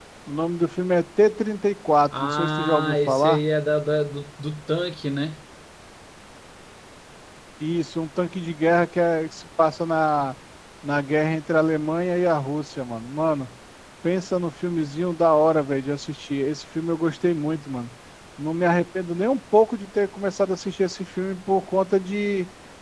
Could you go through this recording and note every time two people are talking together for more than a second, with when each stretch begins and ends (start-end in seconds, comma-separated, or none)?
2.2-3.4